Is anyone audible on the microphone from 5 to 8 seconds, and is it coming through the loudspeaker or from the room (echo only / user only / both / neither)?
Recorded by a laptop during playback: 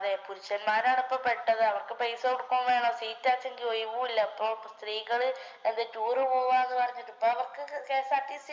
echo only